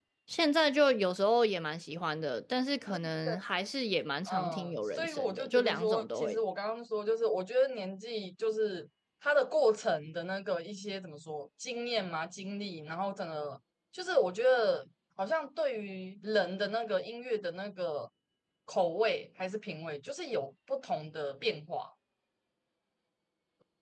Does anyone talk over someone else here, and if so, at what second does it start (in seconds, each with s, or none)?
4.3 s